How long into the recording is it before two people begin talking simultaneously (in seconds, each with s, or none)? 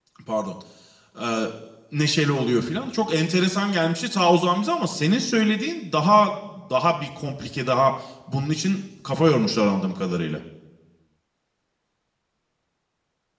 none